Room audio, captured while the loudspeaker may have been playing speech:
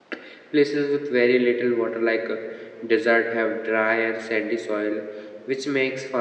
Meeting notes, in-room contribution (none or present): present